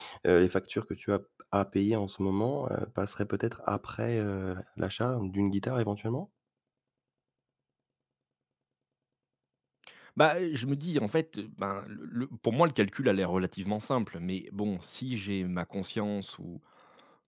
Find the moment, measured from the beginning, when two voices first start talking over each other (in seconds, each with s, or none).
none